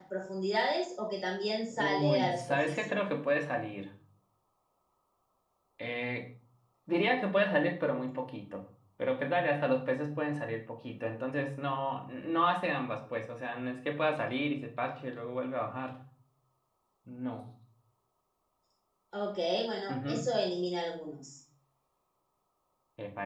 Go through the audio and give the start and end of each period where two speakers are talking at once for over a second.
1.7-3.0

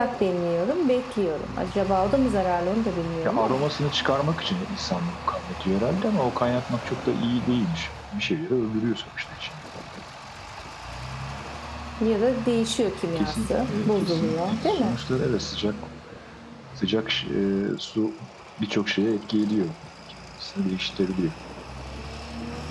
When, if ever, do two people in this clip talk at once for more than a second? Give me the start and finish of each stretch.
13.2-15.0

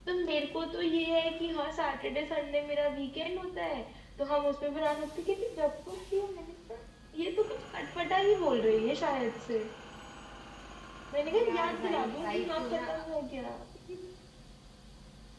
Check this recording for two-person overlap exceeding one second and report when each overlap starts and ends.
11.4-13.0

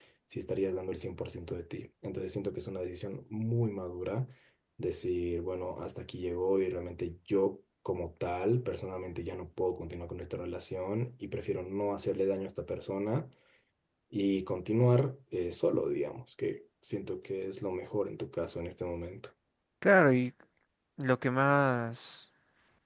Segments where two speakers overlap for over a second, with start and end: none

